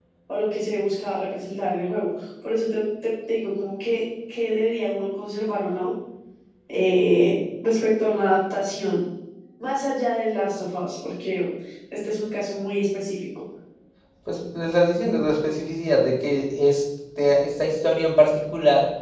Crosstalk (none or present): none